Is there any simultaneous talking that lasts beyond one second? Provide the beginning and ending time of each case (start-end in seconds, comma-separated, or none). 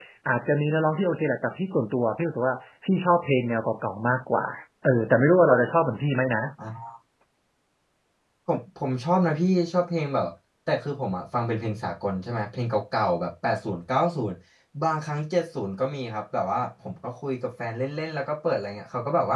none